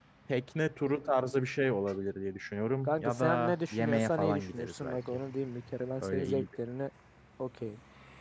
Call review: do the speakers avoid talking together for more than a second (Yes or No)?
No